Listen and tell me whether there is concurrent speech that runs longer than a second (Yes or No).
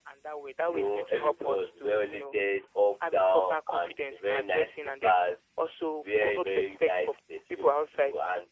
Yes